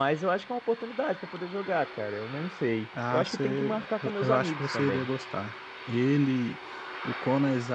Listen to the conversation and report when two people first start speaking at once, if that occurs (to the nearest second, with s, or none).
3 s